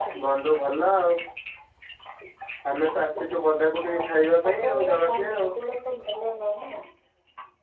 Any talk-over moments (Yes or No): Yes